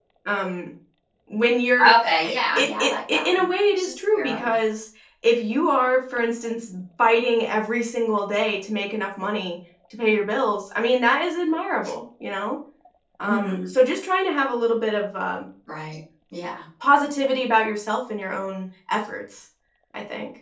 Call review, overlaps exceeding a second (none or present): present